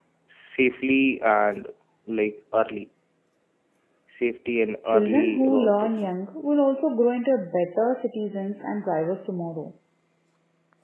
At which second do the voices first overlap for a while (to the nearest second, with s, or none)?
5 s